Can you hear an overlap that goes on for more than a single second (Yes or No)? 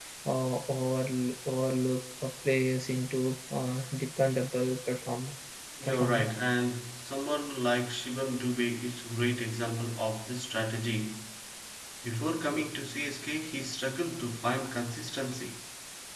No